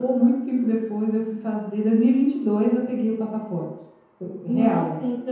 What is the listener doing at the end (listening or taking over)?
taking over